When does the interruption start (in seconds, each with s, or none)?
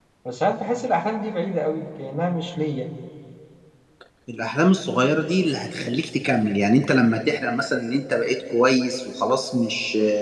none